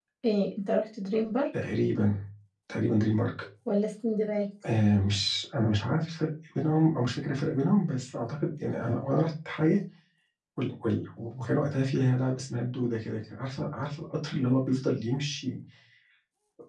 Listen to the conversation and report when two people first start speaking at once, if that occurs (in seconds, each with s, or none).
none